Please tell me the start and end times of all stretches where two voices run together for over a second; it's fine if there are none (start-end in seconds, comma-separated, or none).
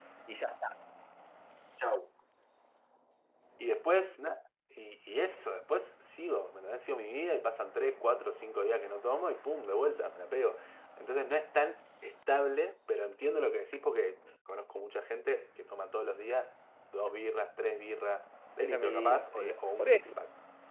18.6-20.1